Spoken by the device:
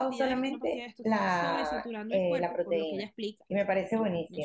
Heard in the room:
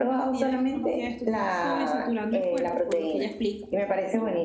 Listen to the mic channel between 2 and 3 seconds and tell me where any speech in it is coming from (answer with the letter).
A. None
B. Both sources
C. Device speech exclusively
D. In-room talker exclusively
C